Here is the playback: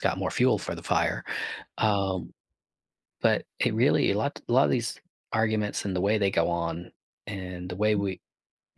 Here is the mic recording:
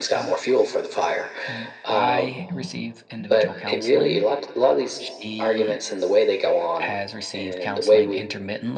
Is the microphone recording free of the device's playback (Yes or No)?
No